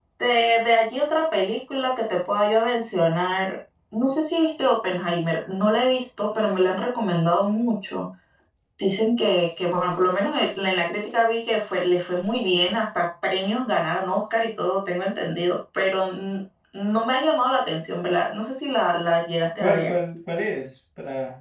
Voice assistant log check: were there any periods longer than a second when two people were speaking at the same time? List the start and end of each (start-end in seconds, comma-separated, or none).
none